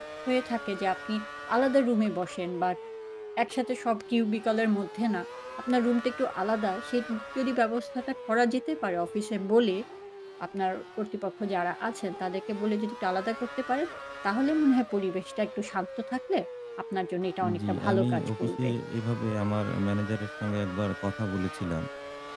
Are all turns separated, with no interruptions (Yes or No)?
No